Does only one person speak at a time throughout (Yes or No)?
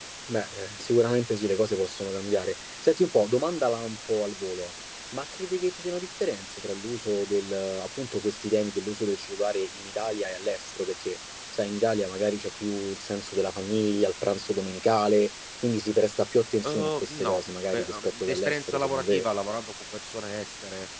No